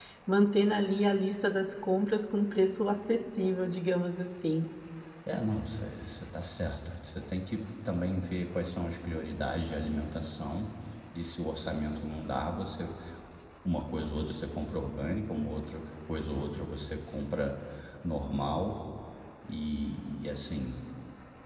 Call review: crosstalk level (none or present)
none